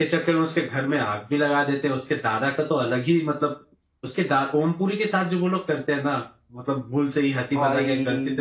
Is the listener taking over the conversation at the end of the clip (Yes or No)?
No